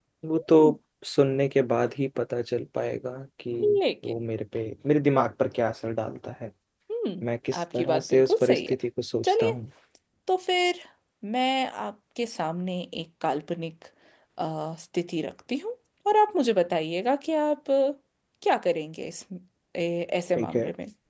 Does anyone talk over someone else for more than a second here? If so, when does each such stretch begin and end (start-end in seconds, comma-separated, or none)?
7.5-8.7